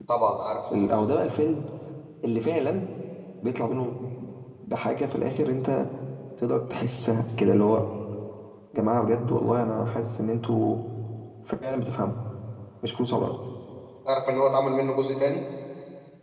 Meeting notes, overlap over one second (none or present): none